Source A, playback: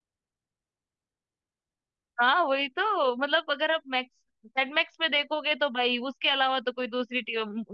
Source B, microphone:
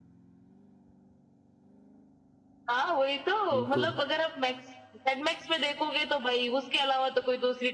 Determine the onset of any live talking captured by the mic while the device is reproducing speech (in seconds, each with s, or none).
3.5 s